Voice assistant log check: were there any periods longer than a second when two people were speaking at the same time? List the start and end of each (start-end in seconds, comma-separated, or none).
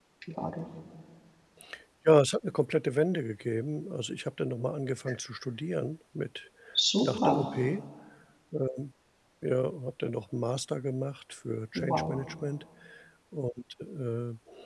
none